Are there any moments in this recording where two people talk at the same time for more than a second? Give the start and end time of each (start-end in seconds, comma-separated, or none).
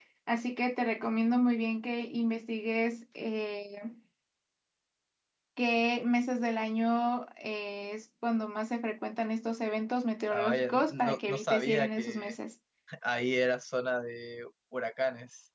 10.3-12.3